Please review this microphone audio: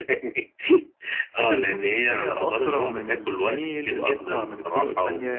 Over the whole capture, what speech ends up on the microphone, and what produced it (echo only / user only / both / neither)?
both